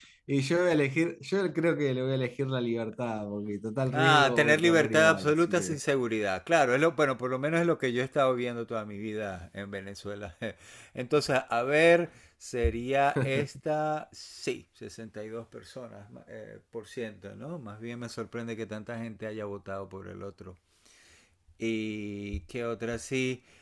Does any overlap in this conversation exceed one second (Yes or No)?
Yes